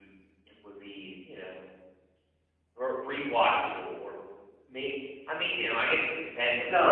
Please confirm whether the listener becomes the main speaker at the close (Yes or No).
Yes